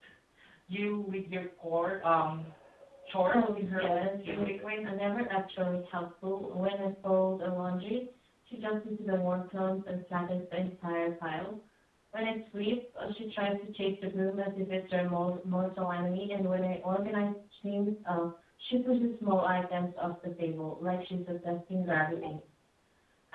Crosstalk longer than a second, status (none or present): present